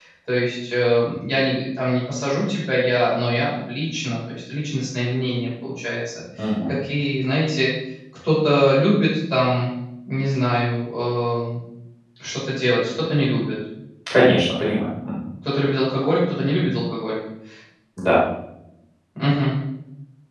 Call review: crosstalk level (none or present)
none